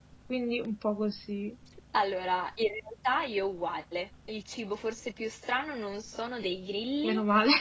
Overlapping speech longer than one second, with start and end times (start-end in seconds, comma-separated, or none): none